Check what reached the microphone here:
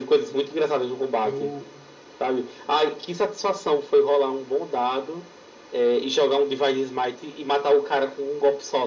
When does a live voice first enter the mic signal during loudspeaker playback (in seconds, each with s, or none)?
1.2 s